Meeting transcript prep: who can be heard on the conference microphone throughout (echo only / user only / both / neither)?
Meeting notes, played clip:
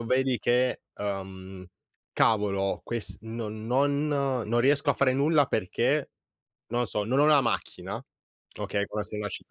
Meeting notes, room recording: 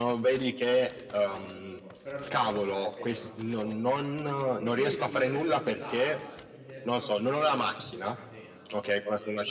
both